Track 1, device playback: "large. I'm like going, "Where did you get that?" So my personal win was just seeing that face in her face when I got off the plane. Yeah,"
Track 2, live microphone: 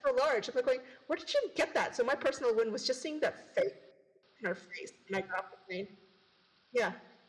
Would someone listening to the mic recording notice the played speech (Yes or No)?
Yes